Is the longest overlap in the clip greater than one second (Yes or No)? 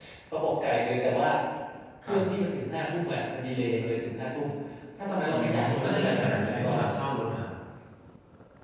Yes